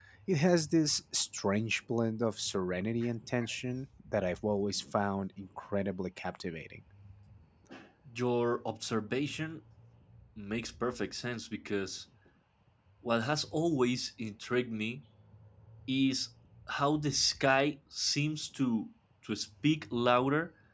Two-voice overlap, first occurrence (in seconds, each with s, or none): none